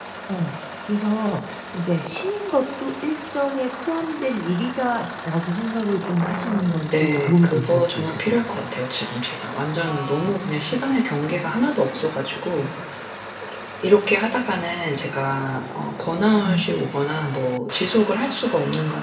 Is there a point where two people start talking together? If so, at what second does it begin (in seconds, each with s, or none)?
6.2 s